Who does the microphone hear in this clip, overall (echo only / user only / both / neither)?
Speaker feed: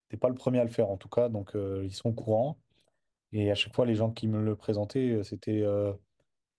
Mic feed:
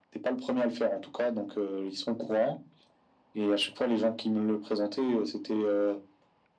echo only